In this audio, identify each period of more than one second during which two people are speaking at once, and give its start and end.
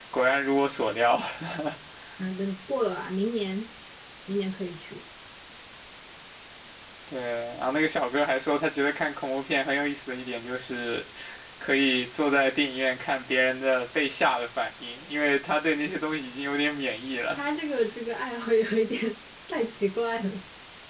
none

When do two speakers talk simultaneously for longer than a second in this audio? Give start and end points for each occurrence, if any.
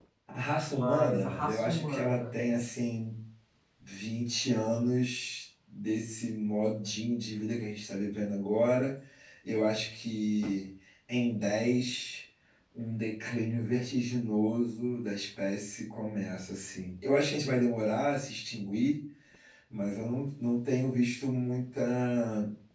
0.7-2.4

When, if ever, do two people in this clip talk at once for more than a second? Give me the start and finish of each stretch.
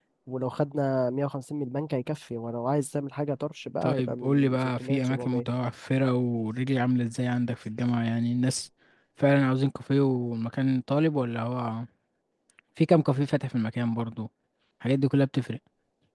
3.8-5.5

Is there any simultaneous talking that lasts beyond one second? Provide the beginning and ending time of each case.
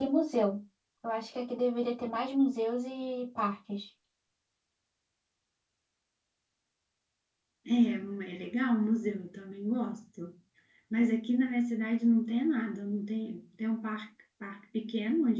none

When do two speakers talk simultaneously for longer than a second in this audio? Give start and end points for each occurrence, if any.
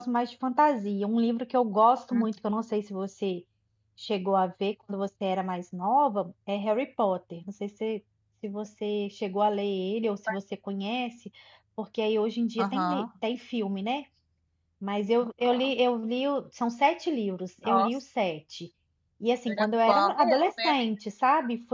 19.5-20.7

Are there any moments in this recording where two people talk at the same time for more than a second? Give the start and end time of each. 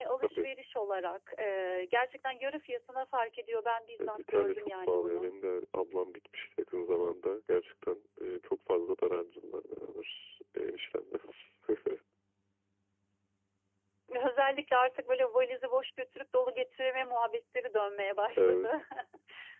4.0-5.3

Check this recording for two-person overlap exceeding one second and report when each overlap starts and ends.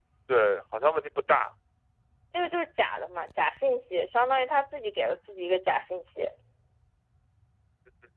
none

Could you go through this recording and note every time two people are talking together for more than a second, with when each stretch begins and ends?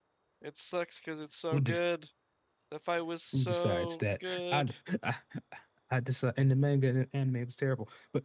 3.3-4.7

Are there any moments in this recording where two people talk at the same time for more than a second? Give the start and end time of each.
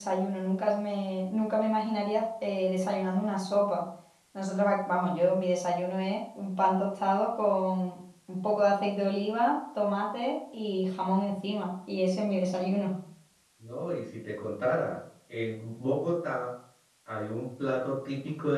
none

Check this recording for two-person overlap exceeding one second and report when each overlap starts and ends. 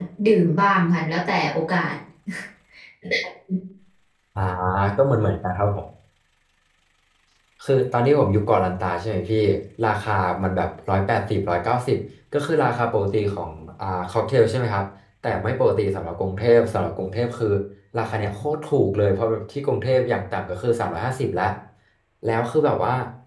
none

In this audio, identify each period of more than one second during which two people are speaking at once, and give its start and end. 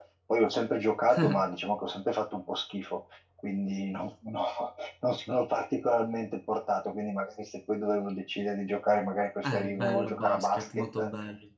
9.4-10.8

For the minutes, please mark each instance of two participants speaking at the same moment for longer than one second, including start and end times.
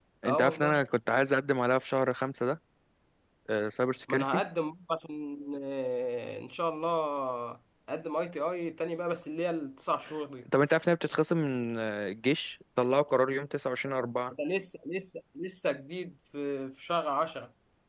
none

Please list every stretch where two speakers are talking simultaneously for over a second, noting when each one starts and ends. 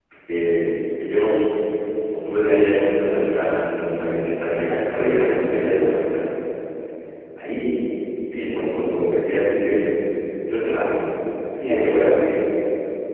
4.6-5.9

